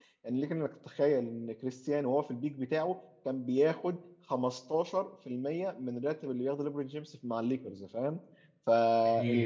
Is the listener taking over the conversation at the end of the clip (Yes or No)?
No